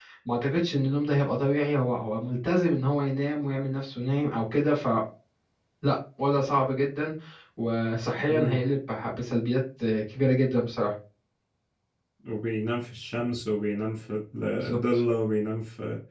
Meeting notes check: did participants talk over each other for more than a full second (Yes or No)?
No